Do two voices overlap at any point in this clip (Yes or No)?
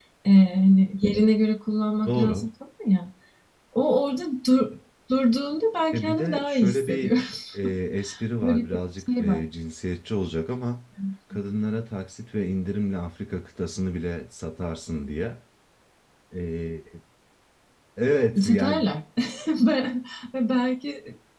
Yes